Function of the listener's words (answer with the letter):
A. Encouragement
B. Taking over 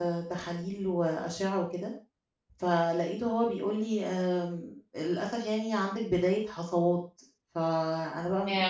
A